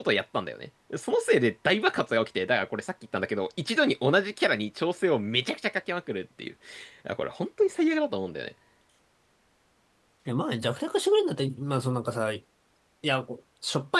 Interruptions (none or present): none